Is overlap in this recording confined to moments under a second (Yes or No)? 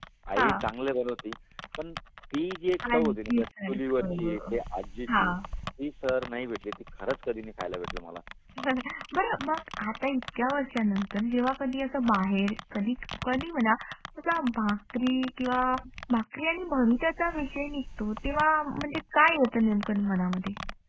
No